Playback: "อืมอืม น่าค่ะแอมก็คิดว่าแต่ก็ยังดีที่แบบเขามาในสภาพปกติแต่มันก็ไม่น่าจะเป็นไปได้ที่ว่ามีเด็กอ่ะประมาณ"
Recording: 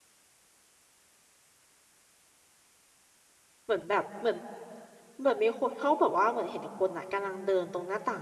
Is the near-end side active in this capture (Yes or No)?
Yes